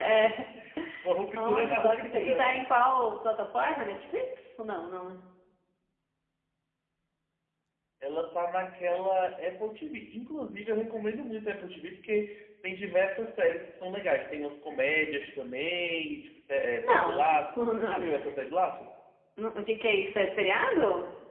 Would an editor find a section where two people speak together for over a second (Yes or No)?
Yes